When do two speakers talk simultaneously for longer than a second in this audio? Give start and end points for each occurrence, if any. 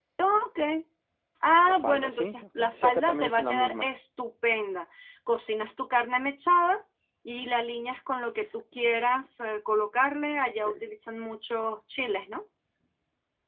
1.6-3.9

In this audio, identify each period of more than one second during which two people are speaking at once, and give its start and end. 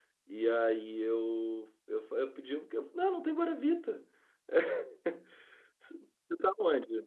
none

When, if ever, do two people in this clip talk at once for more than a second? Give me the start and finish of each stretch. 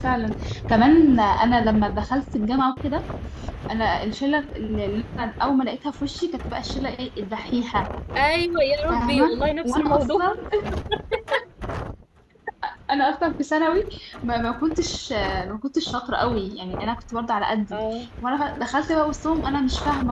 8.9-10.2

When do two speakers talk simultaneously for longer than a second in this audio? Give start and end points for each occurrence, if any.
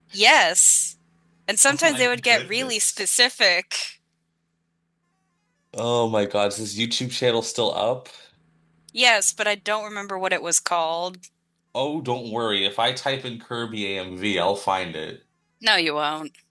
1.7-3.0

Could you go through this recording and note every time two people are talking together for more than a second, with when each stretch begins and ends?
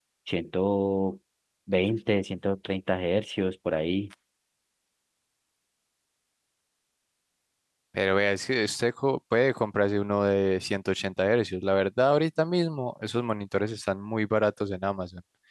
none

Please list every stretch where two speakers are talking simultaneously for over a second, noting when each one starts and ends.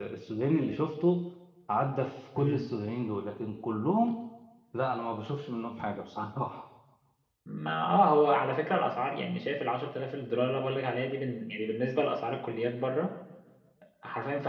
none

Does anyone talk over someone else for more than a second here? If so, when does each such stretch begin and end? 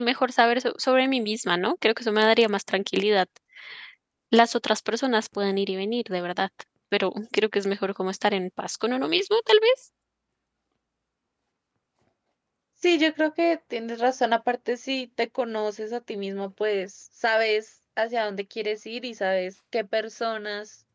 none

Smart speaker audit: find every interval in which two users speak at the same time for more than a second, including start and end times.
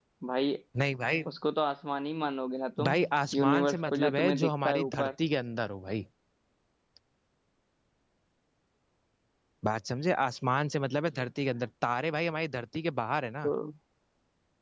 3.3-5.1

